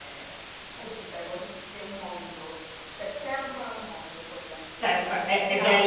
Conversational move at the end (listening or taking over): taking over